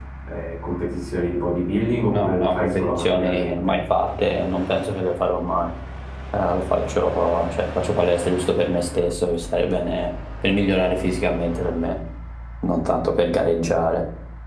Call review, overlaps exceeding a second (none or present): present